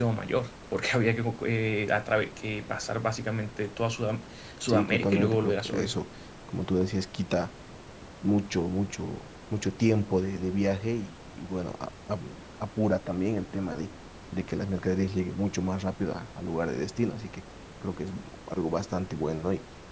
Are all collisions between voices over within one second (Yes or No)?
No